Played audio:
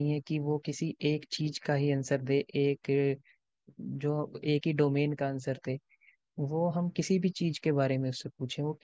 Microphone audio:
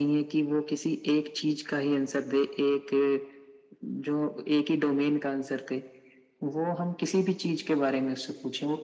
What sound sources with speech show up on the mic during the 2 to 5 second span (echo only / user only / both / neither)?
echo only